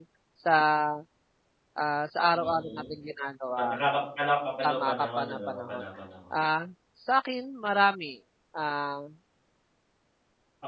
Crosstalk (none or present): present